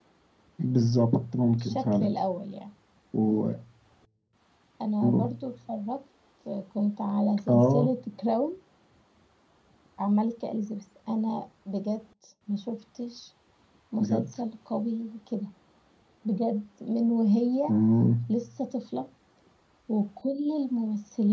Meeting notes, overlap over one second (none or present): none